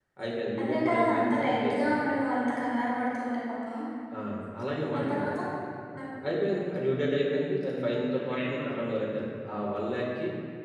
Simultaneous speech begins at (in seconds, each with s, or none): 0.6 s